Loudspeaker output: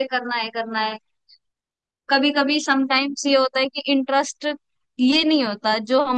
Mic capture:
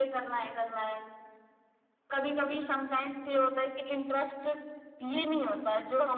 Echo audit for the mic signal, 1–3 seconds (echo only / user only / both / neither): echo only